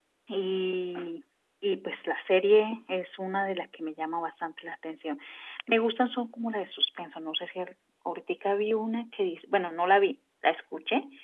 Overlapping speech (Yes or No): No